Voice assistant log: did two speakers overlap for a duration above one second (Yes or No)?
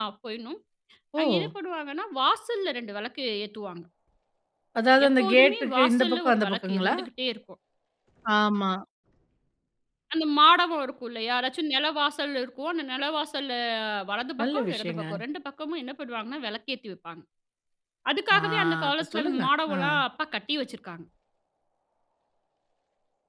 Yes